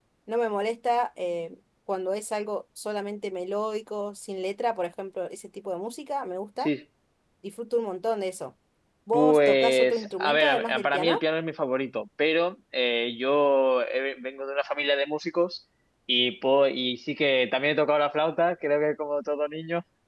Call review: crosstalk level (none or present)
present